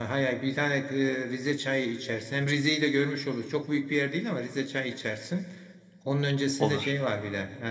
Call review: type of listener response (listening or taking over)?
listening